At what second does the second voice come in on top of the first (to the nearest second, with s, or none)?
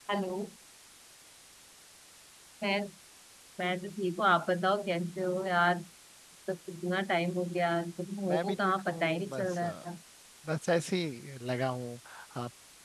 8 s